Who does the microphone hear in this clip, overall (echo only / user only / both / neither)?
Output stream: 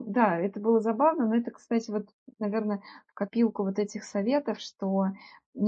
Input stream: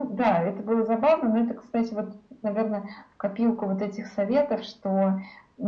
echo only